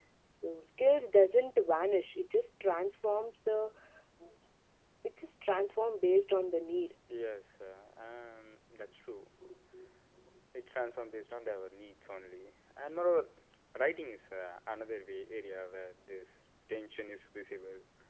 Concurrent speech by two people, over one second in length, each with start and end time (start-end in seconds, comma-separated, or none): none